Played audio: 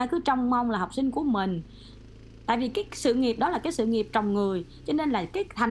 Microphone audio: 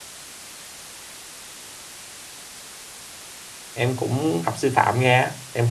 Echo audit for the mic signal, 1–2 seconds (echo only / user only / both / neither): neither